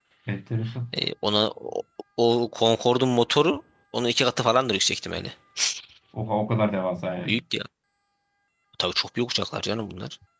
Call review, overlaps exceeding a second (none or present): none